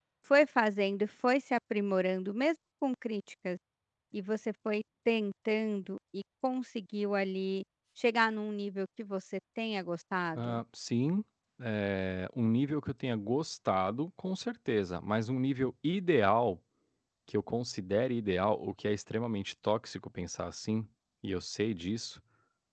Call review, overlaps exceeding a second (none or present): none